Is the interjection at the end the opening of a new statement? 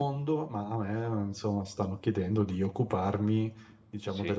No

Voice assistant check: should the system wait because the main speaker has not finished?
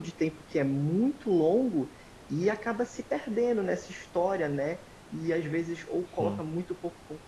Yes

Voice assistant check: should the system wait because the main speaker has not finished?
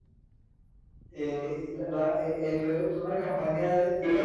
No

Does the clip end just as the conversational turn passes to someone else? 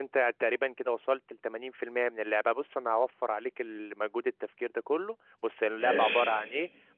No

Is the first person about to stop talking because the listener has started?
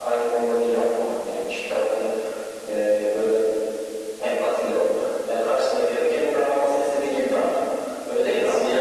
Yes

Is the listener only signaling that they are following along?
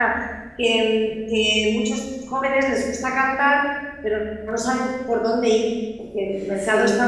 Yes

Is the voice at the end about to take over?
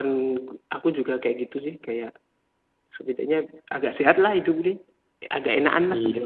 Yes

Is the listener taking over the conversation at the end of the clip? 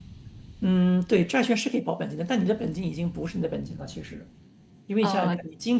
No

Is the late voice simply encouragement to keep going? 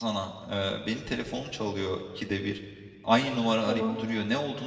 Yes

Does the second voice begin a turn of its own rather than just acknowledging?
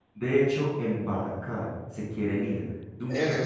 Yes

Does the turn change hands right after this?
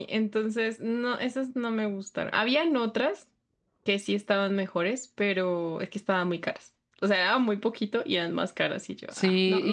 Yes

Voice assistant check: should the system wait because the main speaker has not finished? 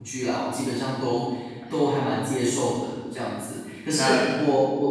Yes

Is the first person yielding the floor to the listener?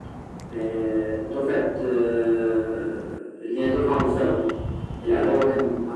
No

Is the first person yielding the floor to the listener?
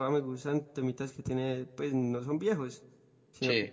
No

